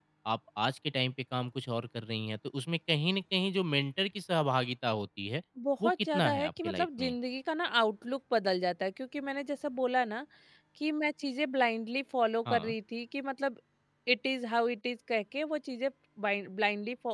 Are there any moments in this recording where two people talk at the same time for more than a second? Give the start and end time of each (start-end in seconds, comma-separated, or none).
5.8-7.1